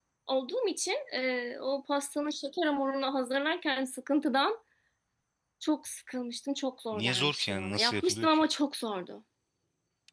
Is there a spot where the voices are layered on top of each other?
Yes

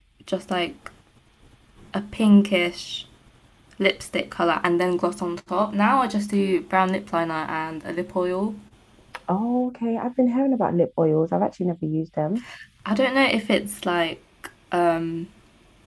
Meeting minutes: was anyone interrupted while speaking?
No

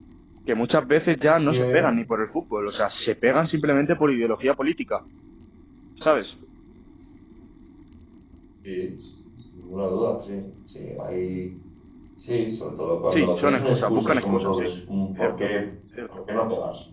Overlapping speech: Yes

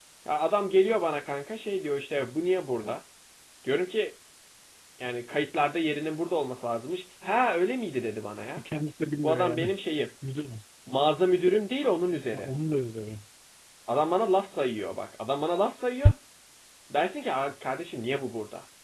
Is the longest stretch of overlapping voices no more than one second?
Yes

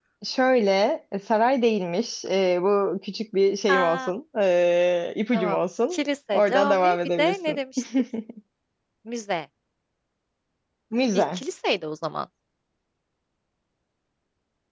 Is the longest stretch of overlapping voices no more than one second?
No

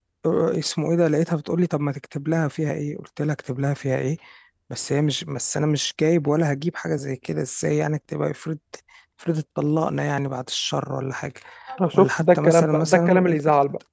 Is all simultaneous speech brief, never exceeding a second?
No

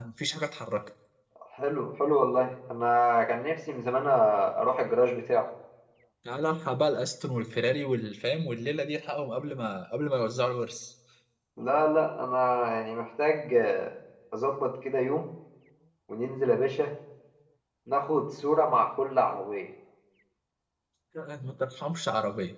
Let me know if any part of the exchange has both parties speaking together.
No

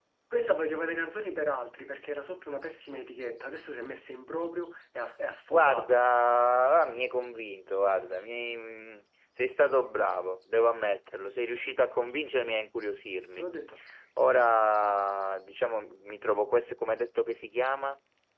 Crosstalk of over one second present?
No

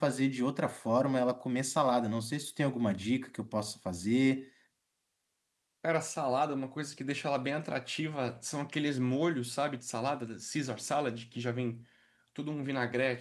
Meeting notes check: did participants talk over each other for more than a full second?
No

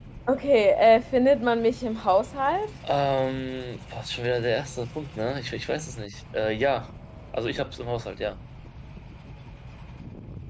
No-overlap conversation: Yes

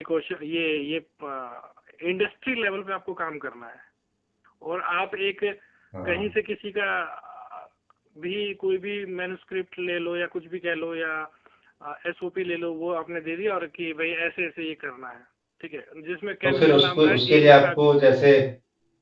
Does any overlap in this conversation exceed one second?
Yes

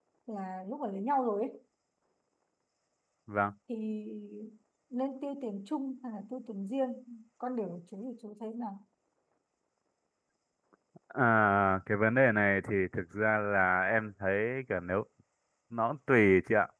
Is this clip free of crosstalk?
Yes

